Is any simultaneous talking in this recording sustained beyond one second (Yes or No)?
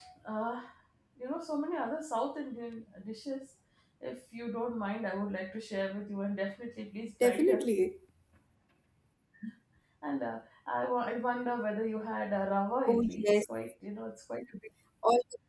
No